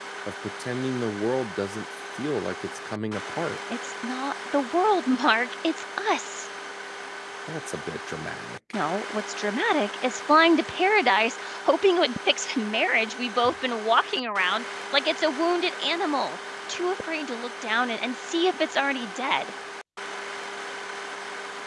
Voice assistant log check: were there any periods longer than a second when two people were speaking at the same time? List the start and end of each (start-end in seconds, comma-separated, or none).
none